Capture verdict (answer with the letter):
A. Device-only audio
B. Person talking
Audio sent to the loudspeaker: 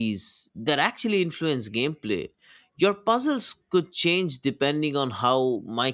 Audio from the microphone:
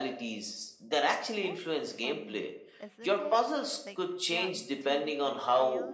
B